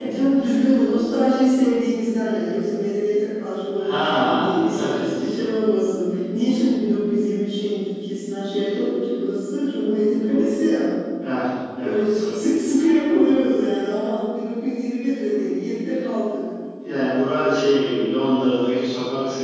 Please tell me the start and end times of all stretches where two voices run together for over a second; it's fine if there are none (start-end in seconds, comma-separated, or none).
3.9-5.3